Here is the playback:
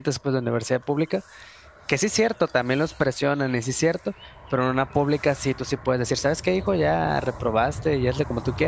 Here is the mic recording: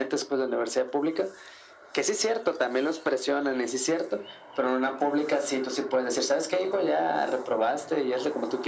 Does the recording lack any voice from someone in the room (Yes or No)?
Yes